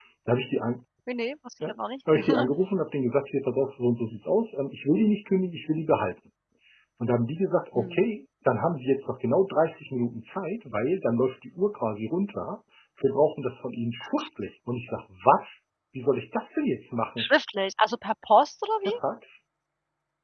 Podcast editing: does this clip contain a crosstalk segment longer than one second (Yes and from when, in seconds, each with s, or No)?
No